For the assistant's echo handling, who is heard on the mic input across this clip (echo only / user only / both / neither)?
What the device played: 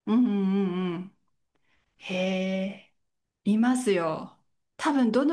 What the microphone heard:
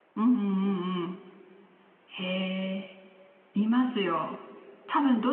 echo only